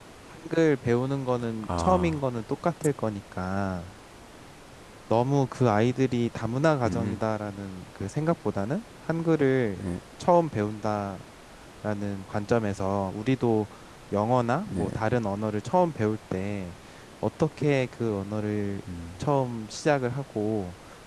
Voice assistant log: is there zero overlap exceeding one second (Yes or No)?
Yes